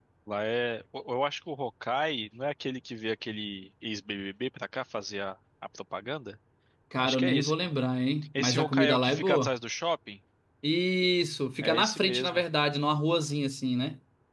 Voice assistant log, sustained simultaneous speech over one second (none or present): present